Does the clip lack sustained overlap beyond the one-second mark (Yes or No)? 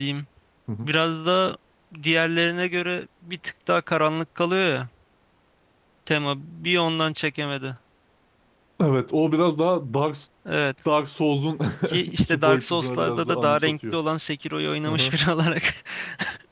No